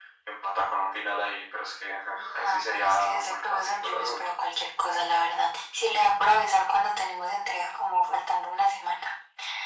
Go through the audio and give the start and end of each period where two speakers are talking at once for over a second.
2.1-4.3

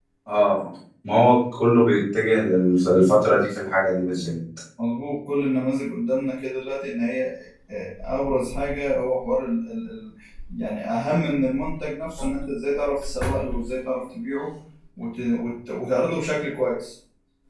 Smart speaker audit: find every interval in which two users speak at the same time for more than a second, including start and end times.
none

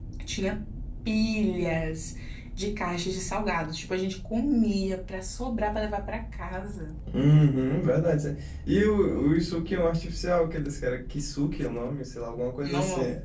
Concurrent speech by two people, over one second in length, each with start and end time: none

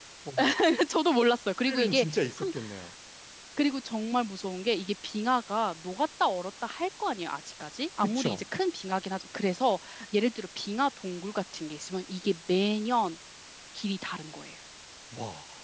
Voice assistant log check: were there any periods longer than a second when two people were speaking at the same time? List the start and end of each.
none

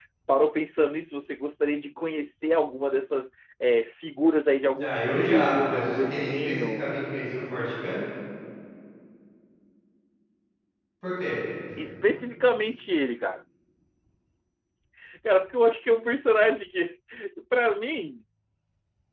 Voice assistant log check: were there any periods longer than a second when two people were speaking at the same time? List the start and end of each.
4.8-6.8

